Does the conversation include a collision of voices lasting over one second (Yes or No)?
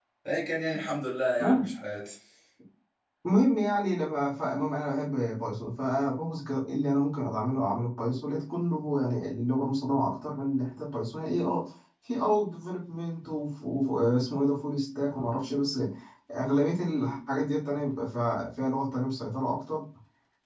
No